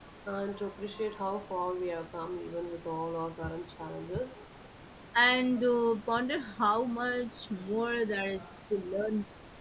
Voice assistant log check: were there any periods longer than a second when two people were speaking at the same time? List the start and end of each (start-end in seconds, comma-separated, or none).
none